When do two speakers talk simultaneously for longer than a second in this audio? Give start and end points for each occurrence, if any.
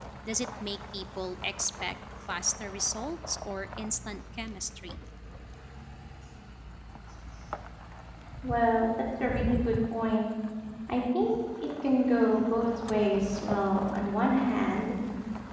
none

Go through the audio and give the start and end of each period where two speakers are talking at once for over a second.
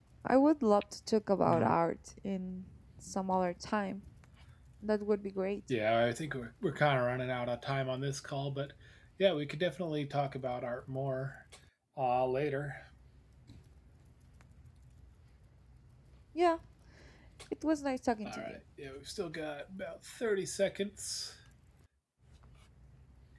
none

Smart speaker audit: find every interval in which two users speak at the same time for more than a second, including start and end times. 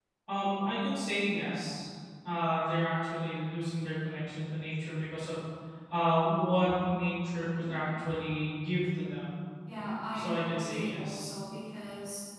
10.1-11.4

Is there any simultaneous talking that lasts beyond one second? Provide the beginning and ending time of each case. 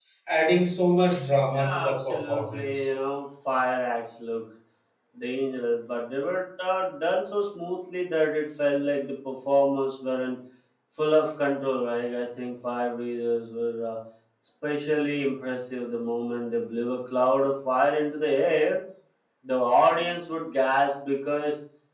1.5-2.9

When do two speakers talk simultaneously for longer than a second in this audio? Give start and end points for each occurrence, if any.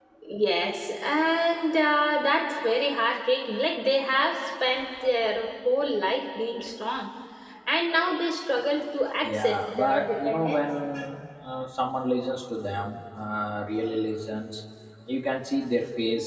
9.2-10.6

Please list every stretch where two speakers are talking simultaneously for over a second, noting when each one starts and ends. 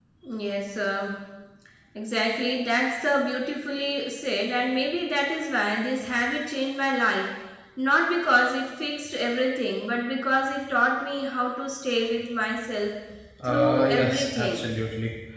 13.4-14.6

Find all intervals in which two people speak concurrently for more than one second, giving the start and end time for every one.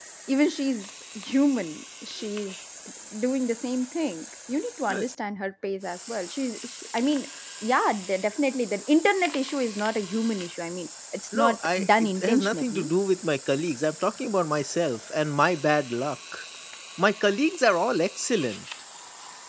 11.4-12.9

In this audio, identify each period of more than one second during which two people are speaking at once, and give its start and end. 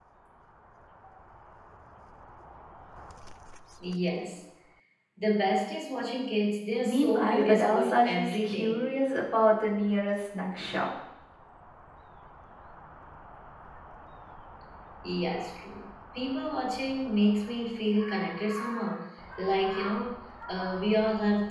6.8-8.9

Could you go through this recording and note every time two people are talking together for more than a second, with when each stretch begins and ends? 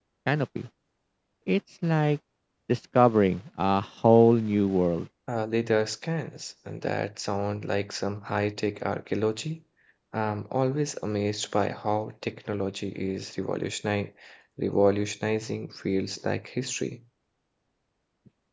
none

